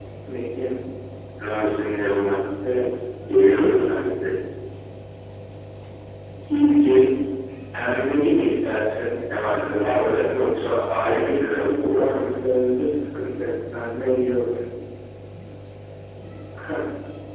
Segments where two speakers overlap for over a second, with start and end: 11.0-12.3

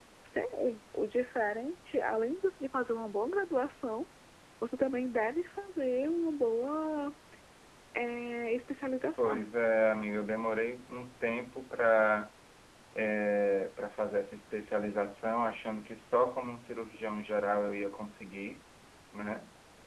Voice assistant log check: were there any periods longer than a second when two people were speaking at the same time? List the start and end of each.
none

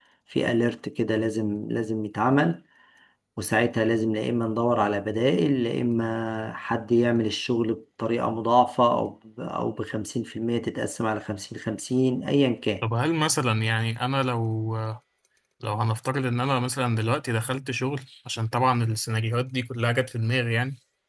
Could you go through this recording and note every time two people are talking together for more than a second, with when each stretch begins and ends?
none

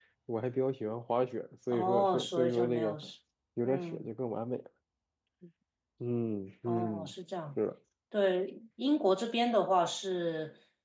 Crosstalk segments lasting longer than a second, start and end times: 1.7-3.0

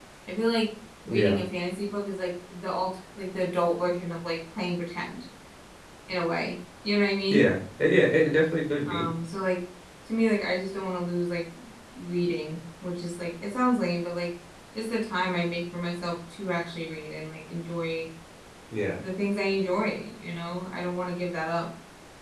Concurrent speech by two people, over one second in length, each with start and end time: none

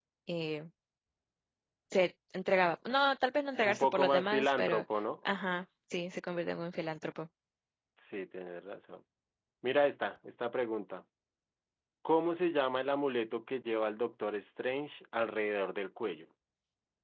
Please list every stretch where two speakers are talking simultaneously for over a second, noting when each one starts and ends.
3.6-4.8

